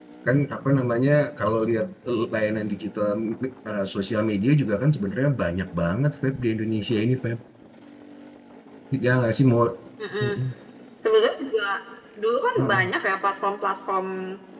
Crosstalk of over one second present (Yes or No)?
No